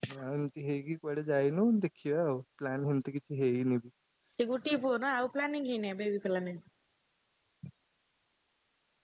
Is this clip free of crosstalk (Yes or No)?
Yes